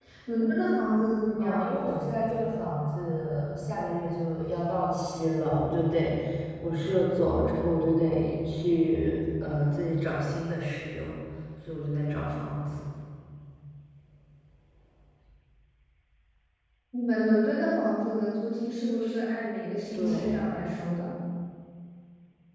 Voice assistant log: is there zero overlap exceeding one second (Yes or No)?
Yes